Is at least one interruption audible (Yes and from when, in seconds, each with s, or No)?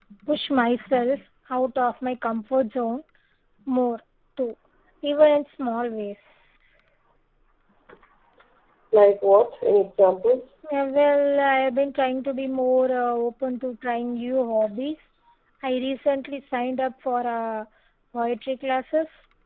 No